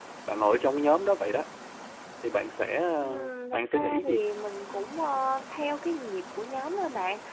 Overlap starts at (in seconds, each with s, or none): 3.0 s